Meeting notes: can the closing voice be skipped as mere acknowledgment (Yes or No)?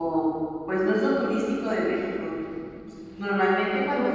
Yes